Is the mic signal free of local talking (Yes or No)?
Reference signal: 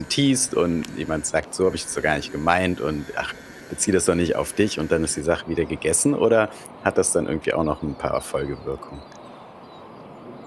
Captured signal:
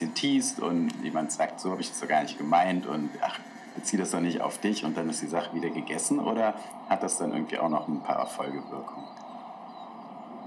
Yes